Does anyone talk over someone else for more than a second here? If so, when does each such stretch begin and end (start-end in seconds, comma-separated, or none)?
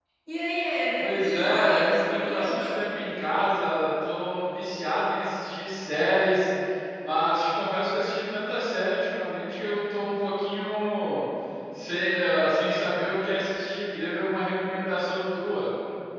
1.0-2.8